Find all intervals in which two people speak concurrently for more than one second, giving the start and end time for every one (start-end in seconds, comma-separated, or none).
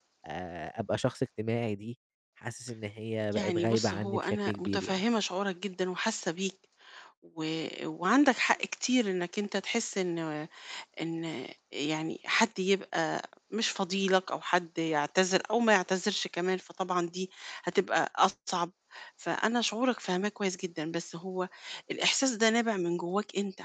3.4-5.0